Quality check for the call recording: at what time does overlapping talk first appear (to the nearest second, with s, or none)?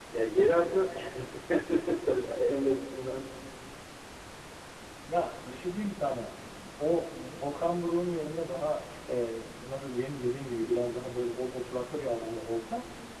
none